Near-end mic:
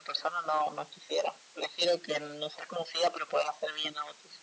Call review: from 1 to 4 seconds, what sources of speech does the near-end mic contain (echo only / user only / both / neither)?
echo only